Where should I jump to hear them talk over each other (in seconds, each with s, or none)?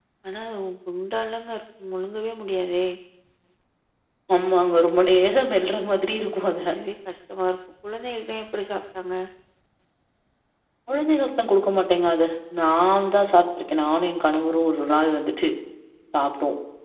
none